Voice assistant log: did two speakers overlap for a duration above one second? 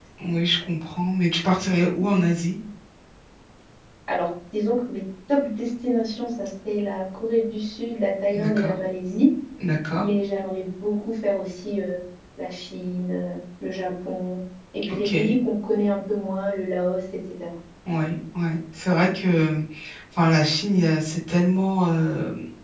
No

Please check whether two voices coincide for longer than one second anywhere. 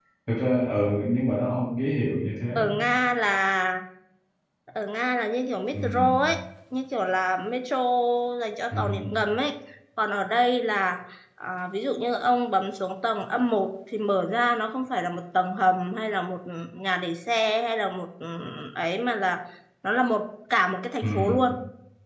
No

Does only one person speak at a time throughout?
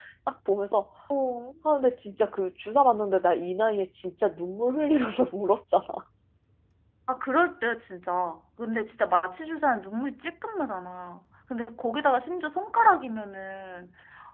Yes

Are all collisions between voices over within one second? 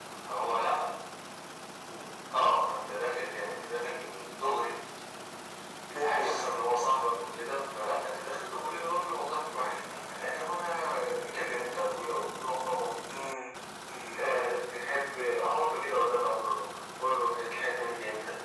Yes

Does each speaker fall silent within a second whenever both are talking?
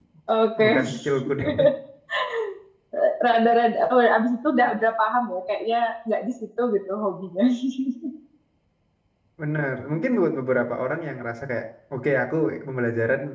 Yes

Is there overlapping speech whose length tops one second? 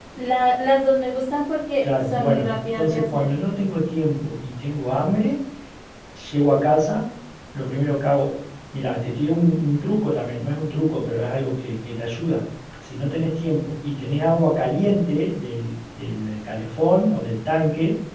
Yes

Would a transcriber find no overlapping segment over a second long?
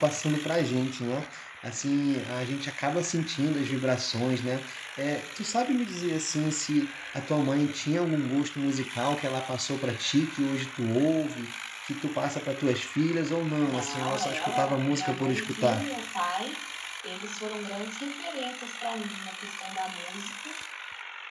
No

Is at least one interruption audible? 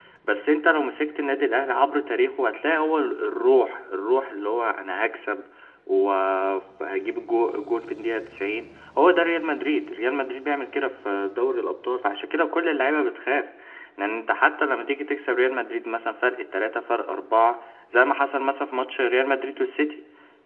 No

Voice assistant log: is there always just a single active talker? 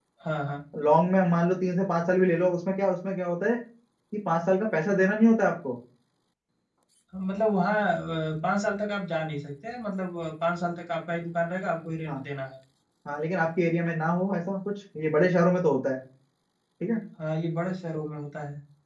Yes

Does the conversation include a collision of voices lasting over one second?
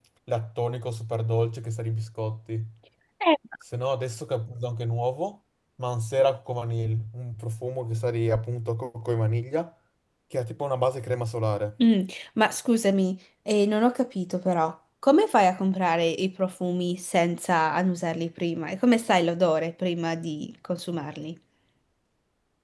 No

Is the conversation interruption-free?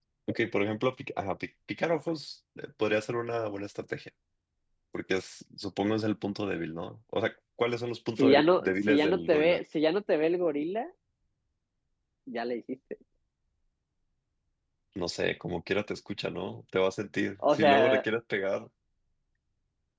No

